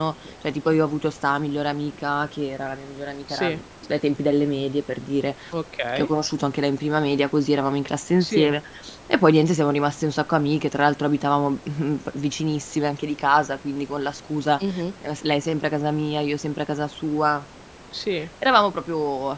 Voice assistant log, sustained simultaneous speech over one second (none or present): none